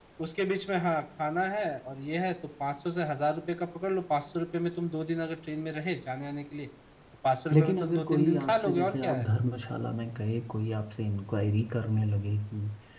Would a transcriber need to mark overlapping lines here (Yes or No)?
Yes